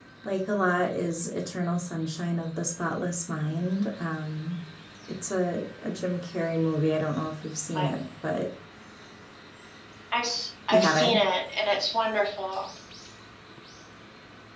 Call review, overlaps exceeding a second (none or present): none